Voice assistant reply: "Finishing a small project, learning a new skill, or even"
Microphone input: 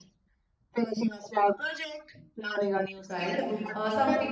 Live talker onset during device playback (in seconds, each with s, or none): 3.1 s